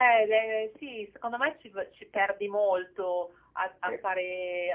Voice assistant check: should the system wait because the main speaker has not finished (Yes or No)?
Yes